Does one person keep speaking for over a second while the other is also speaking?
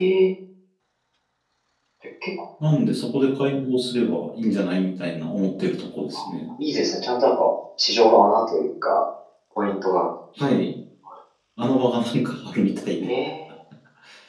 No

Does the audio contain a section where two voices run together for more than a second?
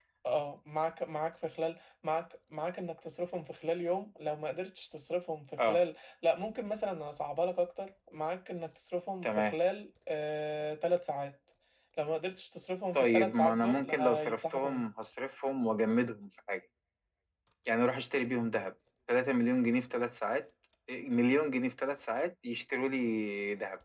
Yes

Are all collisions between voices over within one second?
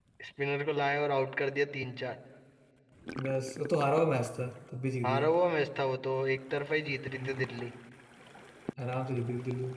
Yes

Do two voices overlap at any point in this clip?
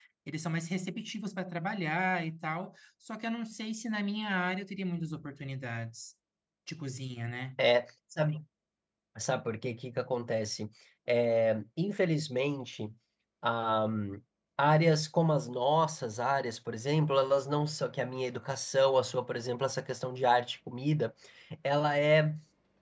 No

